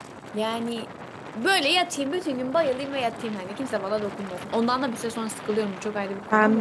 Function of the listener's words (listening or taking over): taking over